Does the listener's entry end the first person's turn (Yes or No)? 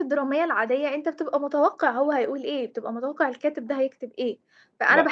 No